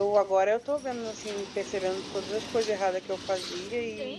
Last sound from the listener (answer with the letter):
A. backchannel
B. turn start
B